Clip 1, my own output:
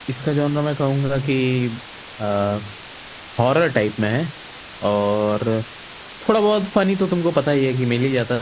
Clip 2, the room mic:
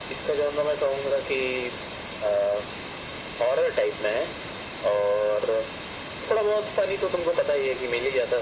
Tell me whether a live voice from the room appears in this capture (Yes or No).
No